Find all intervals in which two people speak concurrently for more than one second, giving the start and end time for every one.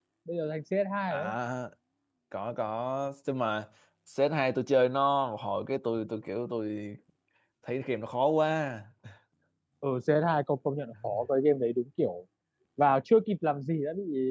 none

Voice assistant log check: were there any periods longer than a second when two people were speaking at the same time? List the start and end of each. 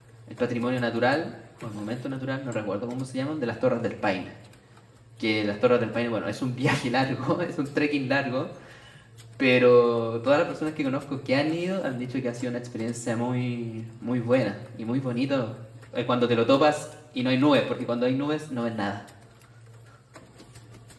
none

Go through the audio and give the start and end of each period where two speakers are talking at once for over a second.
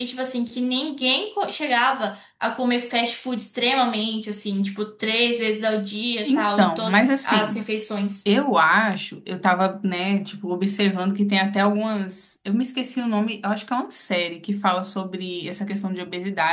6.2-7.6

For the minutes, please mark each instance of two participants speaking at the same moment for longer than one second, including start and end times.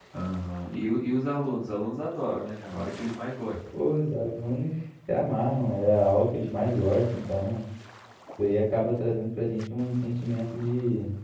none

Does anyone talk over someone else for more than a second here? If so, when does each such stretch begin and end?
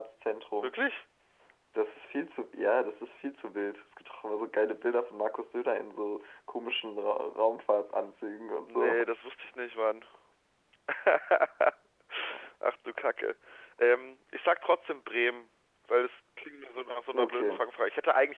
none

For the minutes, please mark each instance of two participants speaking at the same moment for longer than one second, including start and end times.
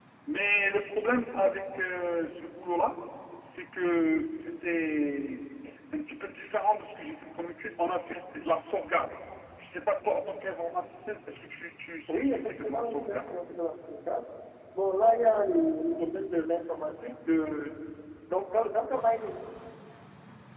12.1-13.3

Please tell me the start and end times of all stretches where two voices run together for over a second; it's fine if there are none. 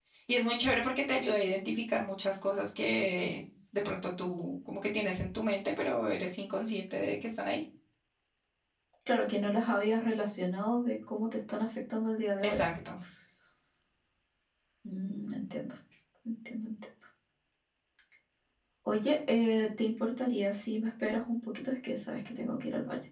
none

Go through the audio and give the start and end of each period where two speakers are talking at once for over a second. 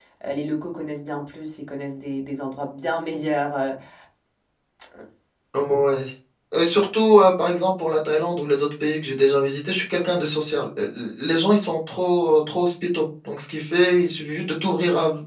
none

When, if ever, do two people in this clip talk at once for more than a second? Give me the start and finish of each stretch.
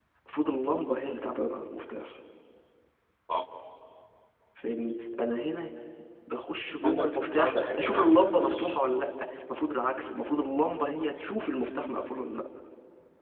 6.8-8.7

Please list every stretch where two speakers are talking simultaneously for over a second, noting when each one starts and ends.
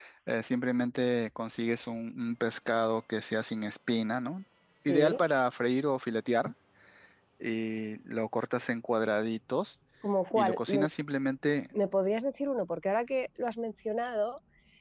none

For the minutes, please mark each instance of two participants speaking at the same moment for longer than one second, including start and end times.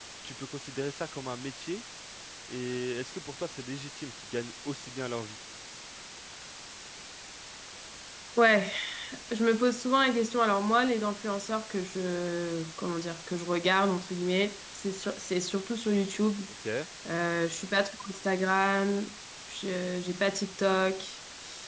none

